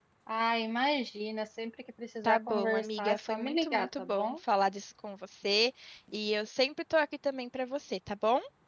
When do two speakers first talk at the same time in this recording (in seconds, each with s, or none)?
2.2 s